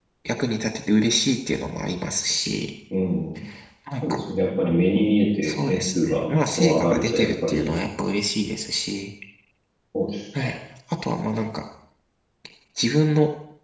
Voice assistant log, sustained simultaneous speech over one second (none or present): present